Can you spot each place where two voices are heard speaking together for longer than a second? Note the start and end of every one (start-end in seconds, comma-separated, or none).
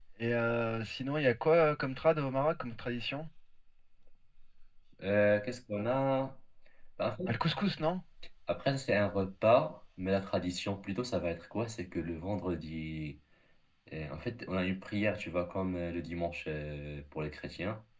none